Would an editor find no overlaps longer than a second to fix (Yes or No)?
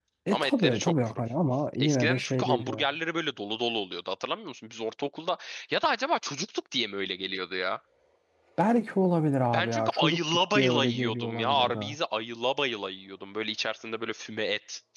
No